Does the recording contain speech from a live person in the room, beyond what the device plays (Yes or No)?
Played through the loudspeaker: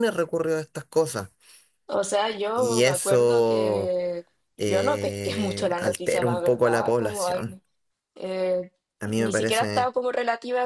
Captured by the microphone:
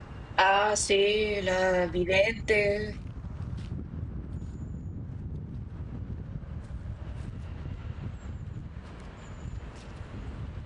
Yes